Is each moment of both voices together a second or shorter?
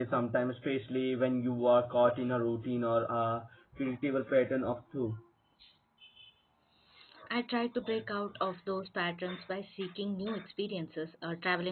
Yes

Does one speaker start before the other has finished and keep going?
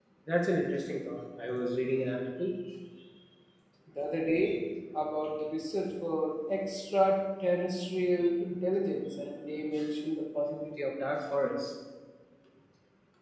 No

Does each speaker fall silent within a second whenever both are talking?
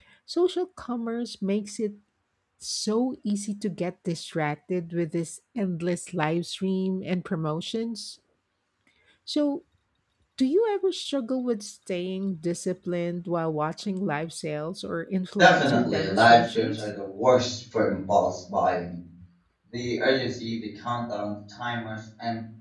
No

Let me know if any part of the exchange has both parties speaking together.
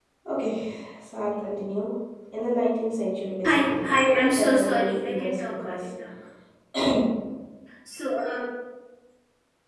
Yes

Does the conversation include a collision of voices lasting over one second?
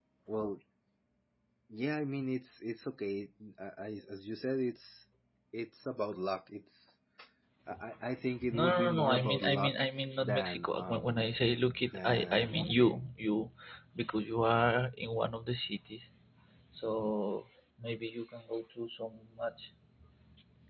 Yes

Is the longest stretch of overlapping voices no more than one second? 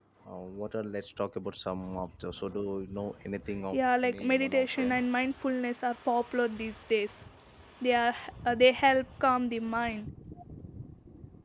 No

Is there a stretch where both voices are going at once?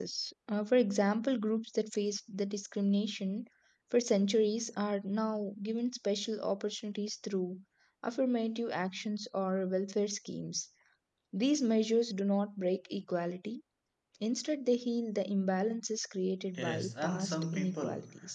Yes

